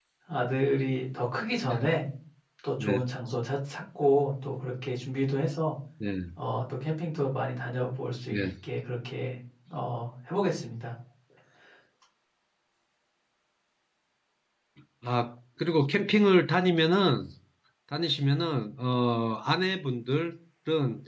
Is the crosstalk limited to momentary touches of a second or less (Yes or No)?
Yes